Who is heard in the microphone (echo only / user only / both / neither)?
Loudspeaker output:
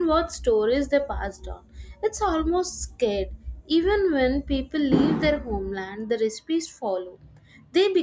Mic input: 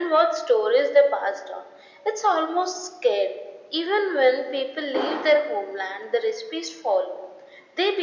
echo only